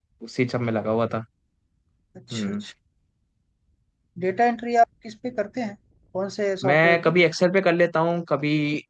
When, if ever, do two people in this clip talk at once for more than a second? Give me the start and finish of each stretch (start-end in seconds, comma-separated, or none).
none